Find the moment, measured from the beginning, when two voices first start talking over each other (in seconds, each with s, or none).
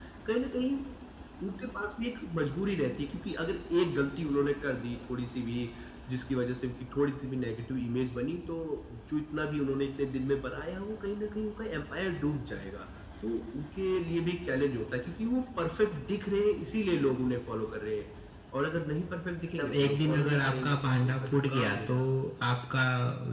19.5 s